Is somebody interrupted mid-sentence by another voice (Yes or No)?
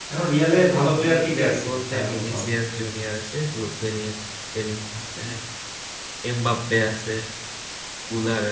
Yes